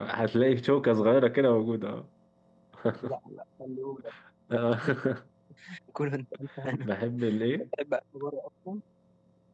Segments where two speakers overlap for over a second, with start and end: none

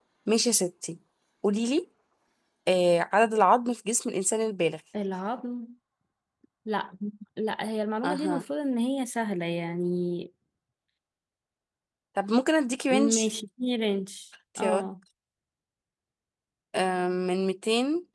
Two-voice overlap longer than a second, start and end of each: none

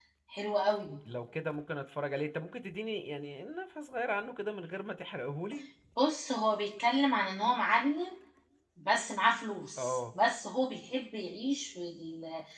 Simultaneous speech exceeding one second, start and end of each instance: none

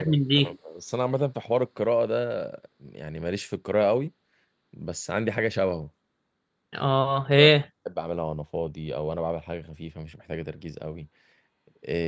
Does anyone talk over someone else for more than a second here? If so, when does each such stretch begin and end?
none

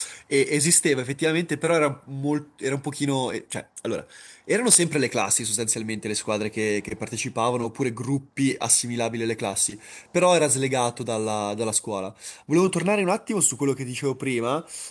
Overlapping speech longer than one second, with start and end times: none

